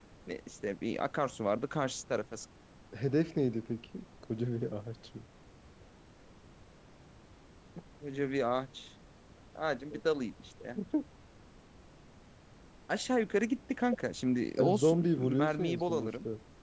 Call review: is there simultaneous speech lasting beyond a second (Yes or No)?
Yes